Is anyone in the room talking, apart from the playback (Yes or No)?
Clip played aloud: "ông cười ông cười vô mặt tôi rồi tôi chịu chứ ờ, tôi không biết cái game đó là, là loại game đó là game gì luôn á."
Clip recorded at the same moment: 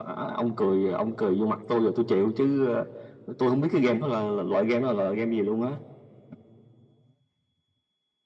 No